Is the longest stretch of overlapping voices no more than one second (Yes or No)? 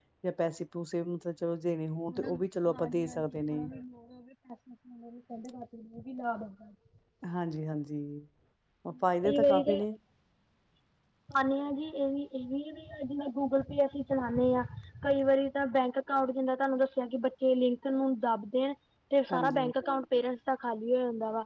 No